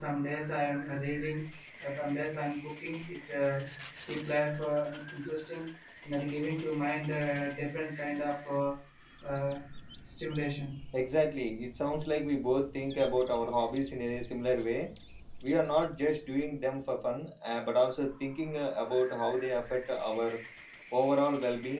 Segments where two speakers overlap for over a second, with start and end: none

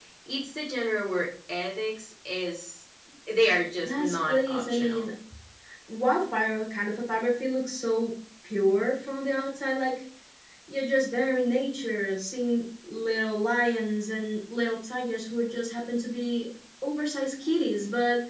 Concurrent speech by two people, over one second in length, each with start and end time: 3.9-5.0

